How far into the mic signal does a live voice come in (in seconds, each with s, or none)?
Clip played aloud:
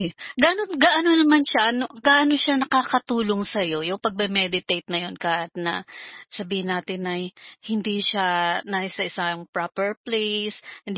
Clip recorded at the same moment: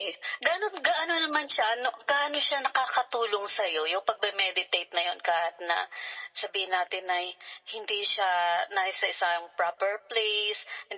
none